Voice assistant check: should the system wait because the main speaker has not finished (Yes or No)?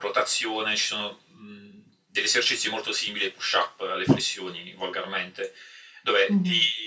Yes